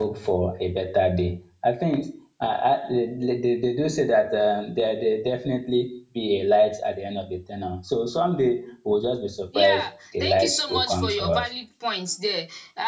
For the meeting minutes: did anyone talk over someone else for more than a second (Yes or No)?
Yes